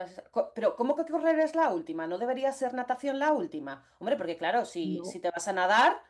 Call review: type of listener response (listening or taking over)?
listening